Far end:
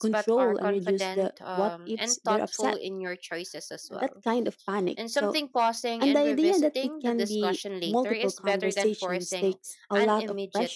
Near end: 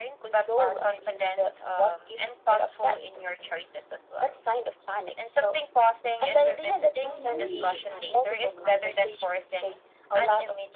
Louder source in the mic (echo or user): echo